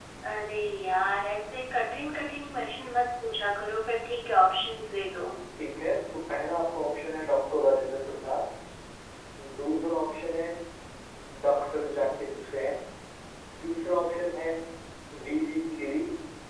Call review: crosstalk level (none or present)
none